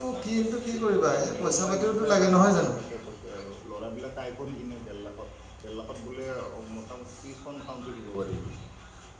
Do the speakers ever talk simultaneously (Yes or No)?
Yes